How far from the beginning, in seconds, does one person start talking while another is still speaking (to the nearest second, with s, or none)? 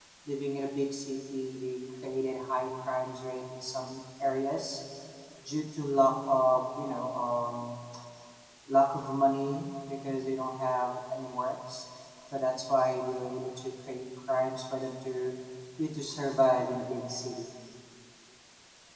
none